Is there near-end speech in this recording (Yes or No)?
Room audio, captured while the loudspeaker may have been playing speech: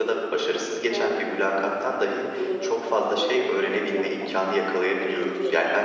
Yes